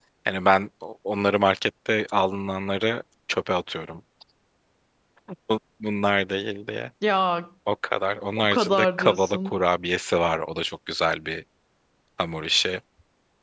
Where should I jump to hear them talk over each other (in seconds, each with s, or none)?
8.4 s